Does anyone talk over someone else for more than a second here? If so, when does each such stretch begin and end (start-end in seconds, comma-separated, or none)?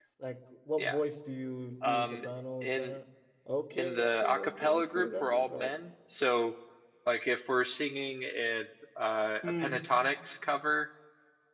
3.8-5.7